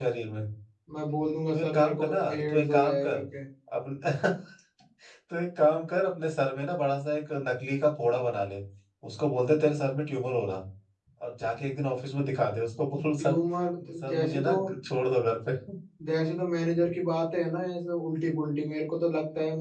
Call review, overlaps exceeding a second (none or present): present